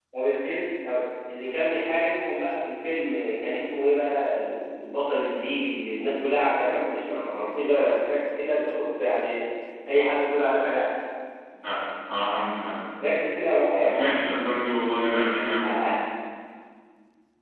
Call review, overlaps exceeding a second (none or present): none